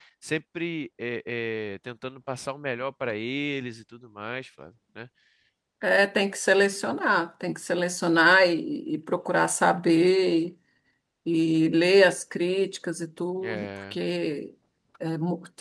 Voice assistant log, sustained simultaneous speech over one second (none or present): none